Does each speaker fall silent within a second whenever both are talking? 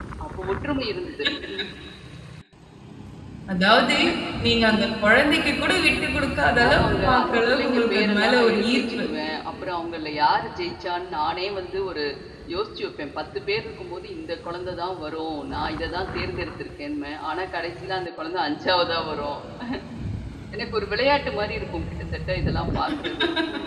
No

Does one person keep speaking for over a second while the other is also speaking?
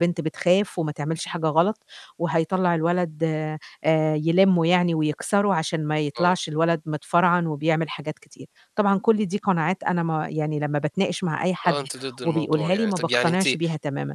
Yes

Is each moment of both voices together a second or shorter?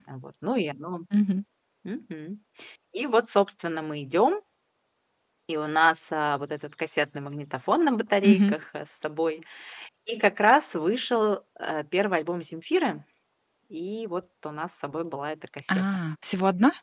Yes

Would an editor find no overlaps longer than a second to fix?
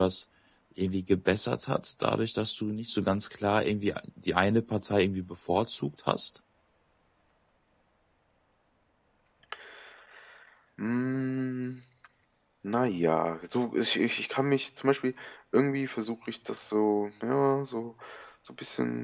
Yes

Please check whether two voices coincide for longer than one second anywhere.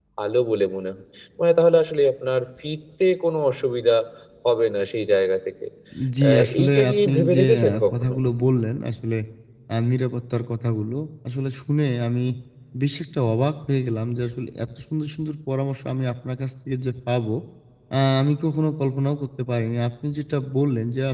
Yes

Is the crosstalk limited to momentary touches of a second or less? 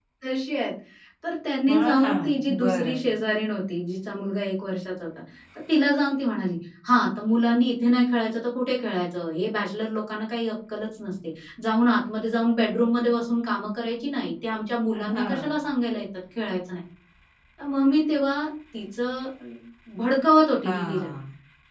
No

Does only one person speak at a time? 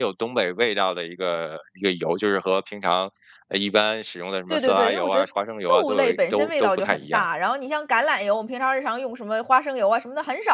No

